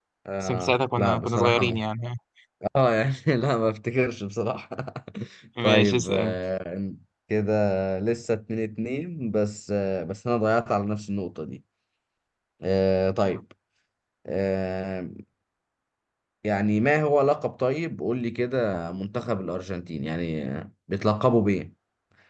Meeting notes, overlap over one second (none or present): present